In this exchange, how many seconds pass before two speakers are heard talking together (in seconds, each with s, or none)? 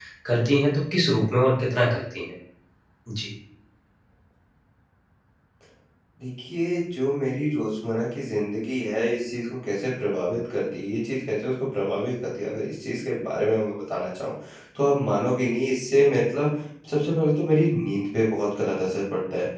none